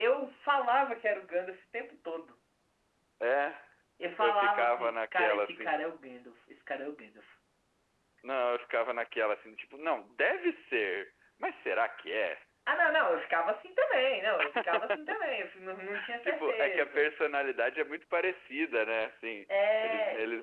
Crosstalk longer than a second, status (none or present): present